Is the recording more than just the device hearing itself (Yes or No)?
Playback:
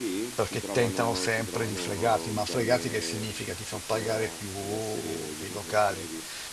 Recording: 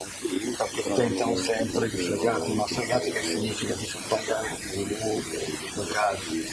No